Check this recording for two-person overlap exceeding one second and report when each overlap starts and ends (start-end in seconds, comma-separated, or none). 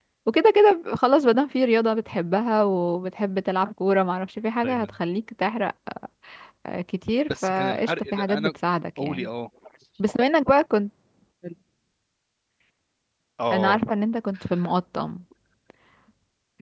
7.3-8.5